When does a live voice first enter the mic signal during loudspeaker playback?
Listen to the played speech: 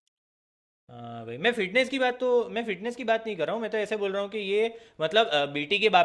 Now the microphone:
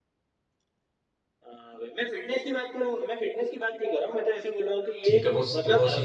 5.0 s

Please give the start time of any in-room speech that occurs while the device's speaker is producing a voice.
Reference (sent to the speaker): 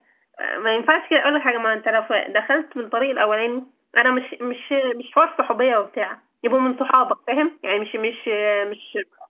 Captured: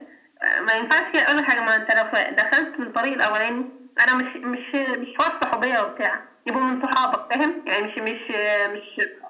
none

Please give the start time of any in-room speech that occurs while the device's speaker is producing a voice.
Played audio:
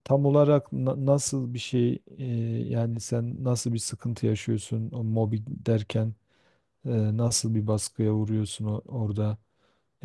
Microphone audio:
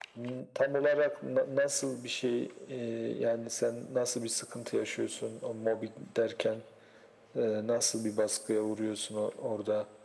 none

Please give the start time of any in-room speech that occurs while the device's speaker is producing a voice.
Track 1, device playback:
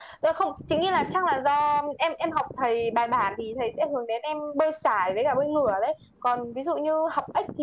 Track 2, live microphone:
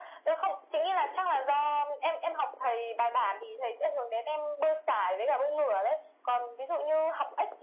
none

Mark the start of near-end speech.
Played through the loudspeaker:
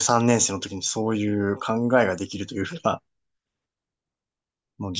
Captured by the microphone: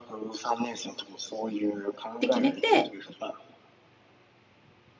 2.2 s

